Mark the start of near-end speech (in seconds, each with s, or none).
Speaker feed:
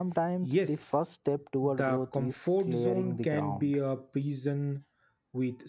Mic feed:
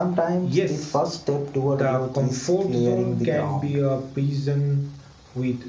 none